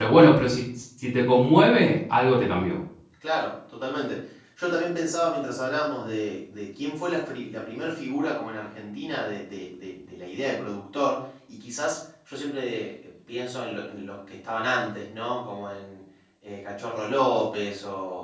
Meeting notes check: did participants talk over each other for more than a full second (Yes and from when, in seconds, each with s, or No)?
No